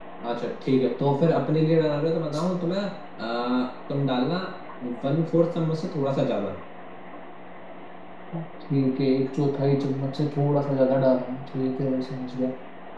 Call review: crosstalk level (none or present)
none